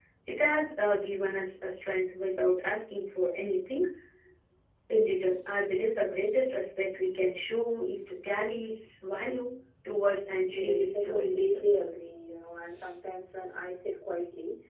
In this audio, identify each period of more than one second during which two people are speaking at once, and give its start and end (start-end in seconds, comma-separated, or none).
10.4-11.8